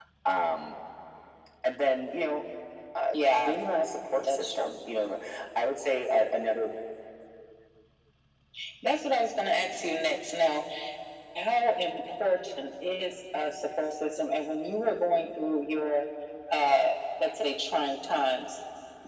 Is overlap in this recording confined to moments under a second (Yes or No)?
Yes